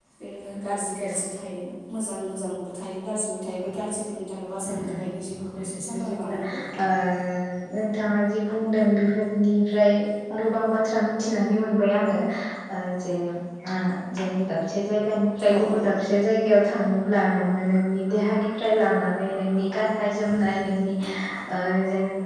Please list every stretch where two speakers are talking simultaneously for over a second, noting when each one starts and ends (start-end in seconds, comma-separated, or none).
4.7-6.4